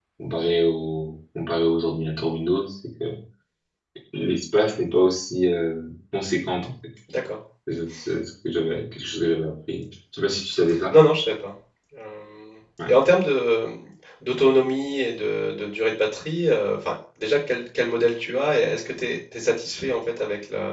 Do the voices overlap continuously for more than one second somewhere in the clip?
No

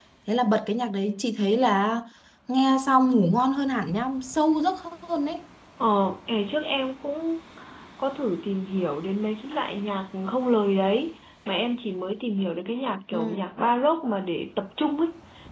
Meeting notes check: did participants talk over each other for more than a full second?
No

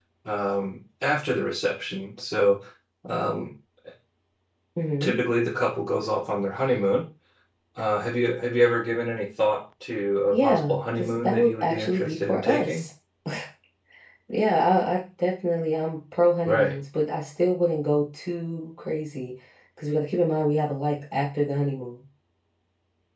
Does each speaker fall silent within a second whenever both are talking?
No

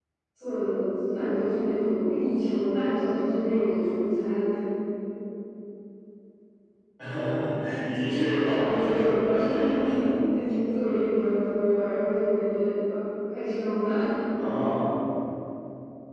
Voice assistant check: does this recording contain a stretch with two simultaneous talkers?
Yes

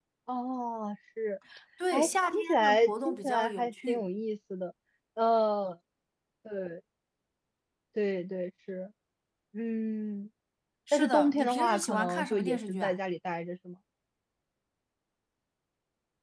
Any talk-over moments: Yes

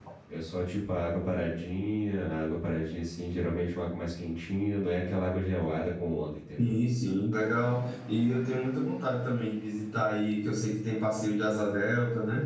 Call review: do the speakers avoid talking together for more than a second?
Yes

